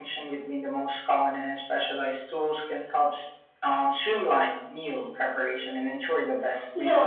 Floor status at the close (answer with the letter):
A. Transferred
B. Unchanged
A